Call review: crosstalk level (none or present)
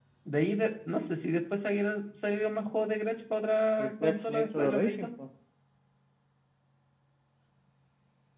present